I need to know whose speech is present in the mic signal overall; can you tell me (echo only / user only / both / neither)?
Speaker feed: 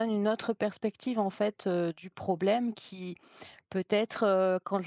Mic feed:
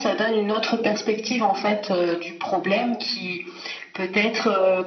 echo only